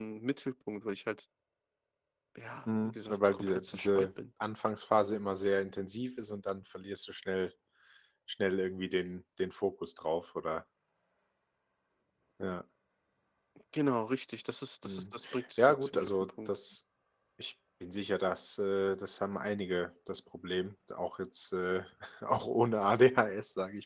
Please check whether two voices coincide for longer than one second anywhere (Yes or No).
Yes